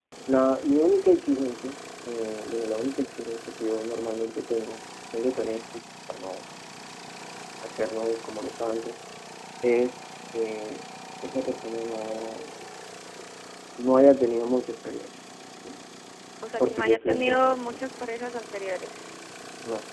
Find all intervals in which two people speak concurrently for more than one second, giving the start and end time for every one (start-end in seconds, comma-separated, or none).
16.6-17.8